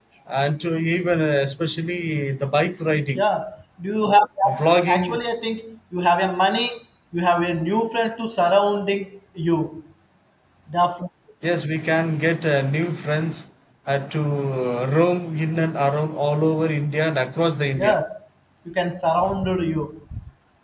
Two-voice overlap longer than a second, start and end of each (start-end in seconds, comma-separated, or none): none